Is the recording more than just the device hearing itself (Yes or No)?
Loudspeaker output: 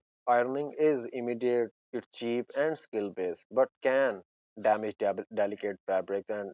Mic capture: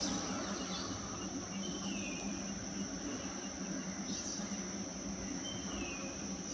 No